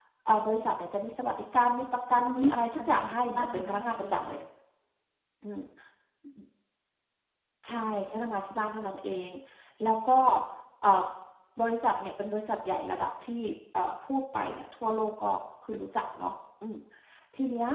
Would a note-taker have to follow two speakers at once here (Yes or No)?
Yes